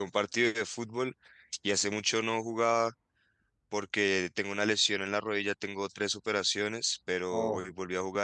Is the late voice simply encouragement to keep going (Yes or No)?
Yes